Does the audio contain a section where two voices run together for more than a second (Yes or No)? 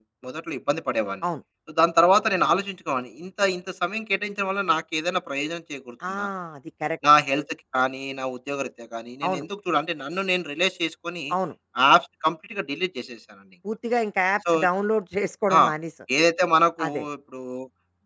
No